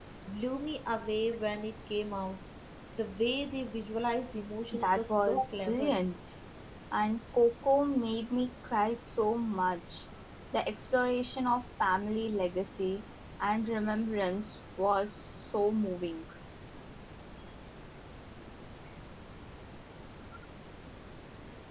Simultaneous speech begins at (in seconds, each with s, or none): 4.7 s